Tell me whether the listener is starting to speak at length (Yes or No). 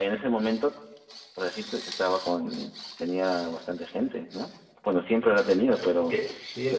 Yes